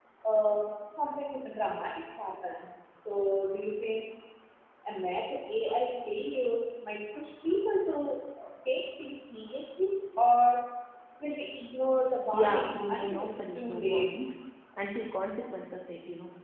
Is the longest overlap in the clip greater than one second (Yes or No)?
Yes